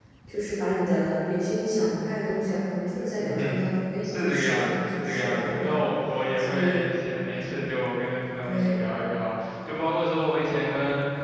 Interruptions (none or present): present